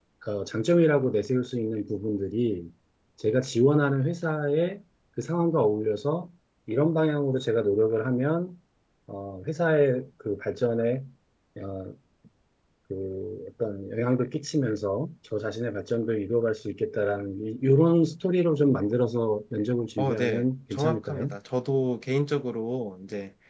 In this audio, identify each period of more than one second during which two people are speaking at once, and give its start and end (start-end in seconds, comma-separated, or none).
20.0-21.3